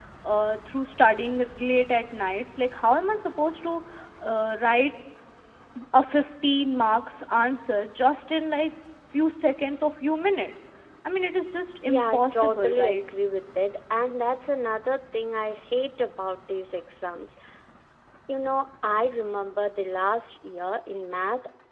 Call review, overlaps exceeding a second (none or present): present